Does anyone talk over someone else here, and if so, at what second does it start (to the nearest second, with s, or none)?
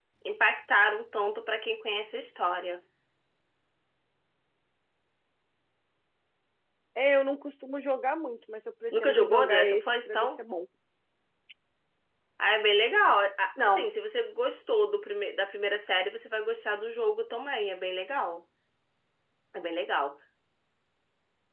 9 s